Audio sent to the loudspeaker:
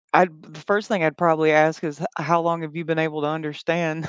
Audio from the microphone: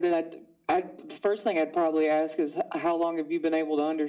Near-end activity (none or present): none